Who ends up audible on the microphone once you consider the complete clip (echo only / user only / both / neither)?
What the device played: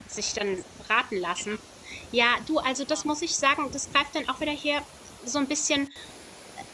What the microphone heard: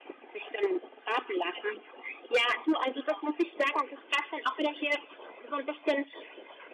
echo only